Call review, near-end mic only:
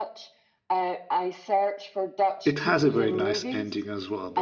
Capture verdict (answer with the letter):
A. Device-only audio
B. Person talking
B